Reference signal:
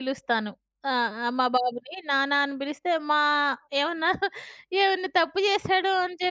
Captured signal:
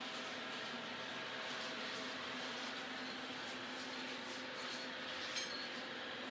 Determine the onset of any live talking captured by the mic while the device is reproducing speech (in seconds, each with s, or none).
none